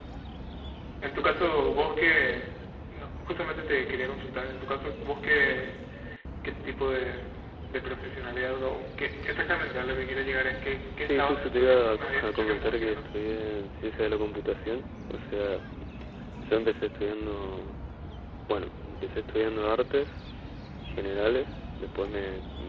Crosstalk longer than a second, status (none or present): present